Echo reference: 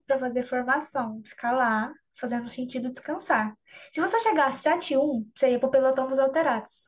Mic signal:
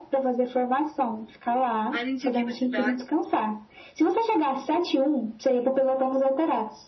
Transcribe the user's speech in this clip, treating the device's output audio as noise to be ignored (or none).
A gente aqui na cidade